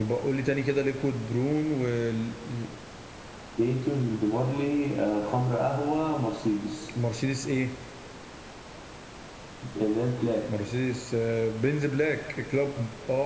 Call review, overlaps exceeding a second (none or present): none